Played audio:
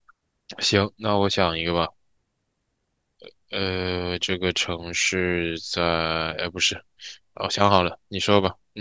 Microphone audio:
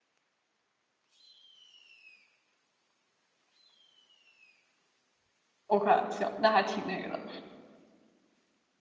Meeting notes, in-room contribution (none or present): present